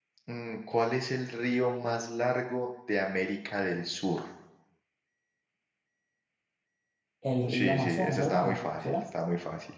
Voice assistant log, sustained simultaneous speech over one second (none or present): present